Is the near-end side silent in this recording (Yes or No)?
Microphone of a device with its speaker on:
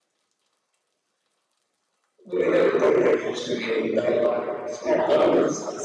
Yes